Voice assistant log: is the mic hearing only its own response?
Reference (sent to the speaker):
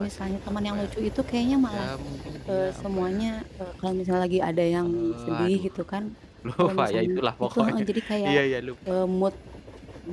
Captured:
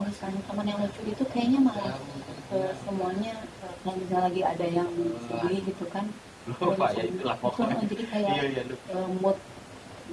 Yes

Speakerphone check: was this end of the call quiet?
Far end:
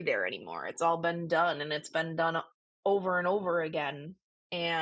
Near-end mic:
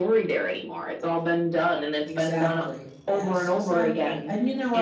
No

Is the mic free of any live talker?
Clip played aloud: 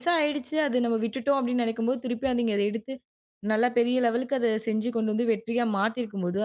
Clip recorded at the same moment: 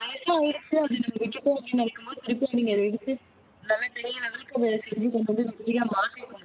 Yes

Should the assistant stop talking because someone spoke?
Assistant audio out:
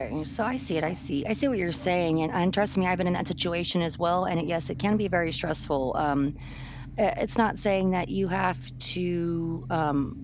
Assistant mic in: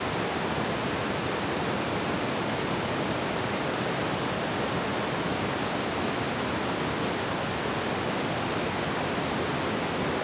No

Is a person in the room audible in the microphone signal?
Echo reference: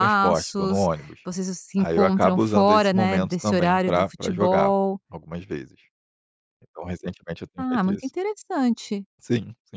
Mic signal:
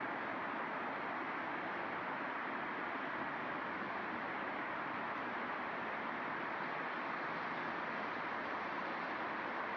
No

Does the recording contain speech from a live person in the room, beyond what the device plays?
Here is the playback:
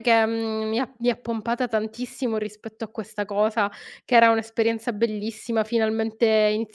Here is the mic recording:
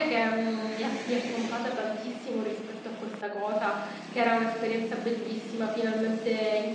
No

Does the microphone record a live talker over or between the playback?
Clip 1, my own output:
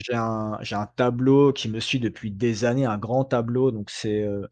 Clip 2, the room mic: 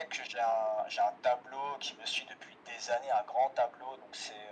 No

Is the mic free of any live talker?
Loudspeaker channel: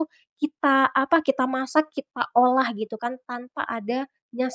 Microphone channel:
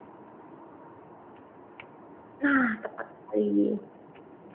No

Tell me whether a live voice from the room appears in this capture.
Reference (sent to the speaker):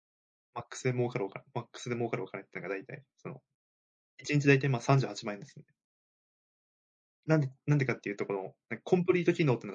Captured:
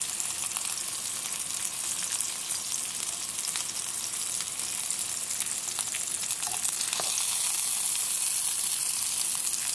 No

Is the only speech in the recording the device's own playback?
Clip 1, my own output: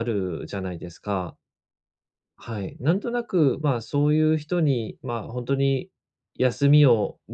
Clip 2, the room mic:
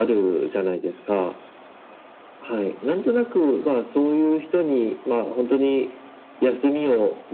Yes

